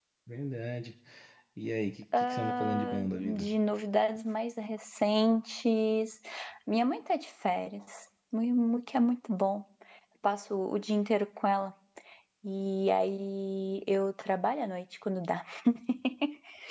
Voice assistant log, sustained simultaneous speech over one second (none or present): present